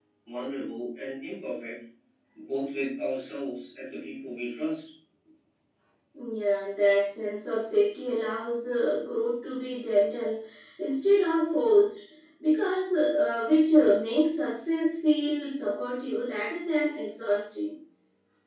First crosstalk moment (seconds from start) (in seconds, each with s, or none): none